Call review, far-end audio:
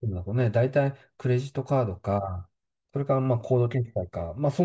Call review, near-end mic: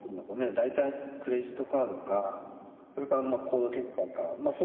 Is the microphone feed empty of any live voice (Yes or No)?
Yes